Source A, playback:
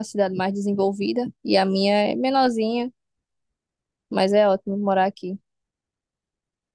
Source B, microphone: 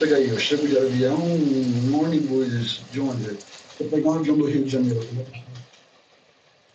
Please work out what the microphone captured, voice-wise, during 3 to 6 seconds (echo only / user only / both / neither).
user only